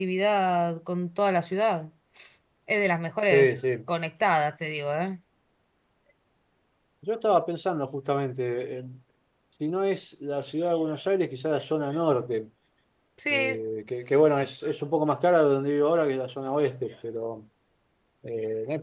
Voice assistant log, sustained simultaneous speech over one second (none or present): none